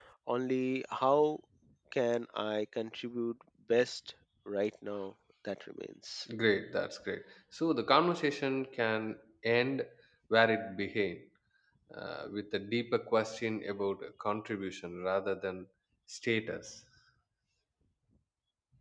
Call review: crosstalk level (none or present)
none